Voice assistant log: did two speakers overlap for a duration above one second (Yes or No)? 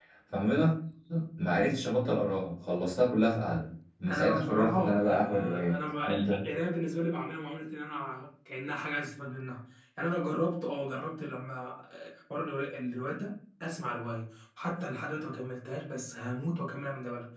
Yes